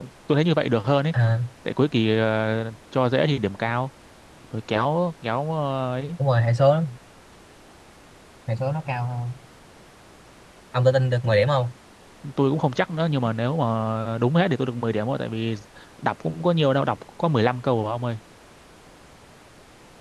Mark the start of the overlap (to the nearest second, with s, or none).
none